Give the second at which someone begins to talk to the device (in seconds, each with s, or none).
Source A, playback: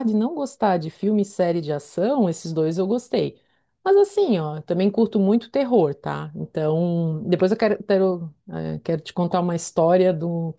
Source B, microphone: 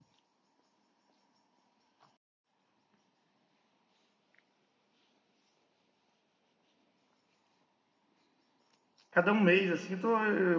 9.1 s